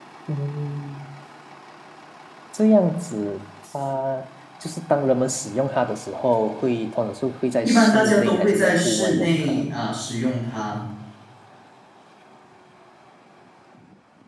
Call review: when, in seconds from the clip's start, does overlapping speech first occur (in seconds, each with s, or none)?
7.6 s